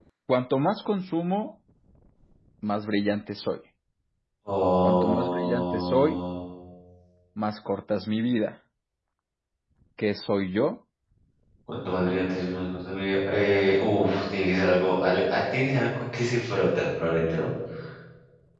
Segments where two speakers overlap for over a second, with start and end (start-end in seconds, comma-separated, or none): 4.8-6.2